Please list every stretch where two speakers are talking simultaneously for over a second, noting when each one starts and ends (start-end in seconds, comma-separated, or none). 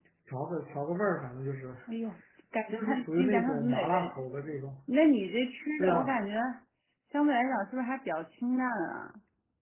2.7-4.1